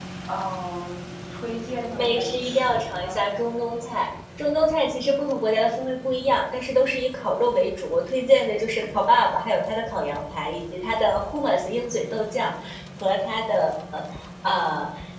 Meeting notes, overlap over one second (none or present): present